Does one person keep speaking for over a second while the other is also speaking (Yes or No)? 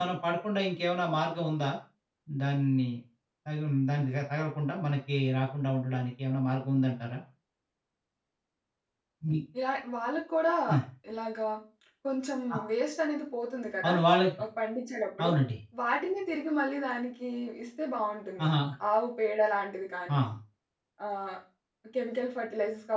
No